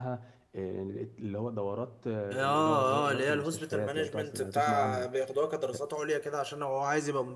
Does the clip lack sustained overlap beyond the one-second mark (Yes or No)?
No